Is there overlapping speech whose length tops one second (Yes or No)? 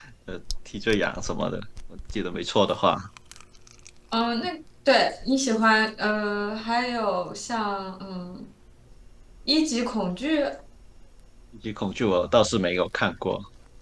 No